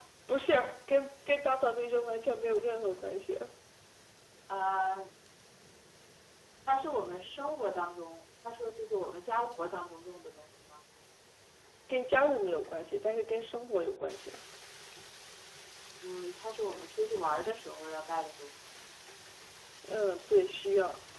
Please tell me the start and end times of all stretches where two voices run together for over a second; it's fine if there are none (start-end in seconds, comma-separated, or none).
none